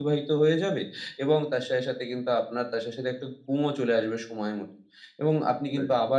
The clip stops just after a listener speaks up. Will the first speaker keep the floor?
Yes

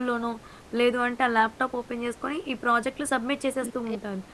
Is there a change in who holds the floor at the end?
Yes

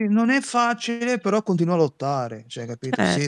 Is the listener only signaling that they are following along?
Yes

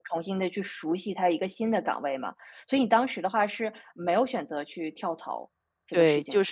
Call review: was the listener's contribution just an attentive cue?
No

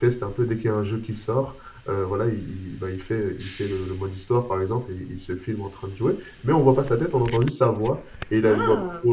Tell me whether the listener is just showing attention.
Yes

